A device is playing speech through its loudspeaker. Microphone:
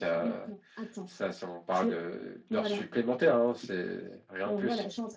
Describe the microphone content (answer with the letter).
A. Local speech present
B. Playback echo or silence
B